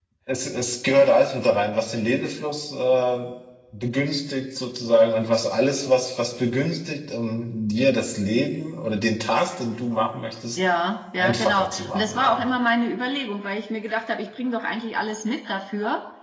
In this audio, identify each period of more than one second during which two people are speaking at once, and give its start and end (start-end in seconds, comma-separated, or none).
11.2-12.4